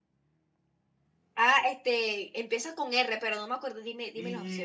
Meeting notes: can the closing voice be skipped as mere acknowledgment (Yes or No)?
No